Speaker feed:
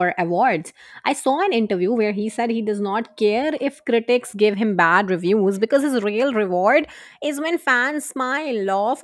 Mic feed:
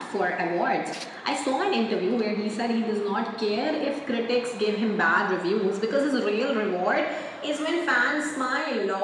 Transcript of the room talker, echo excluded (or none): none